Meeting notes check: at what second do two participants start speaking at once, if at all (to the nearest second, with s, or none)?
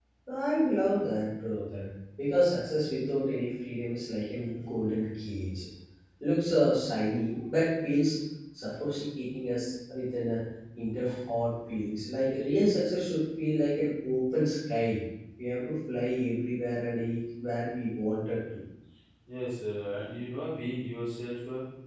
none